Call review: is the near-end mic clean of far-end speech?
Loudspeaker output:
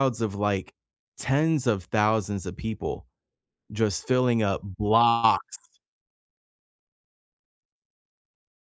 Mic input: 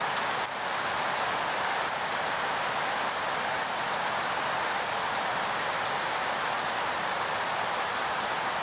Yes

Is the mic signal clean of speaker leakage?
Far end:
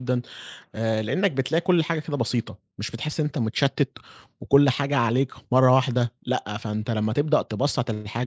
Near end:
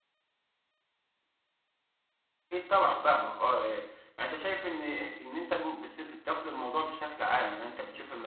Yes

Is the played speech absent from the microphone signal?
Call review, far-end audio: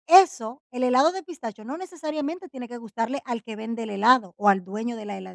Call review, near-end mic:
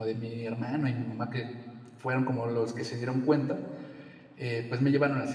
Yes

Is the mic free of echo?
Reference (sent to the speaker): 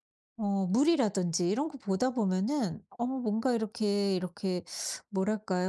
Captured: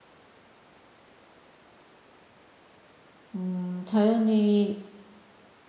Yes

